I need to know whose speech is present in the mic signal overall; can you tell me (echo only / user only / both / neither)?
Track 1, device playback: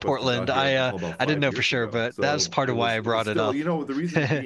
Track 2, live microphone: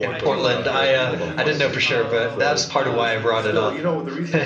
both